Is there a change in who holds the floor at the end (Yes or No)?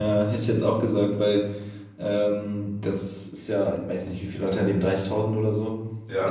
No